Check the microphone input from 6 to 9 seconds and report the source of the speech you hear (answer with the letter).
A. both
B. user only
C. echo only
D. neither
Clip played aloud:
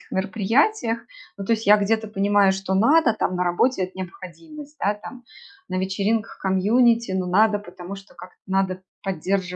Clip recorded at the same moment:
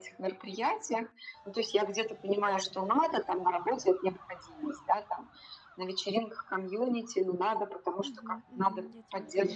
A